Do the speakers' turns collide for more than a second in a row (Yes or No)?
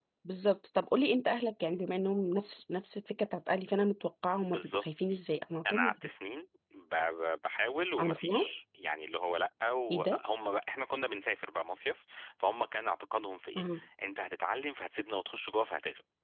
No